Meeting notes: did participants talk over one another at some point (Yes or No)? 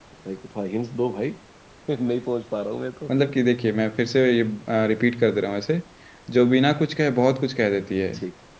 No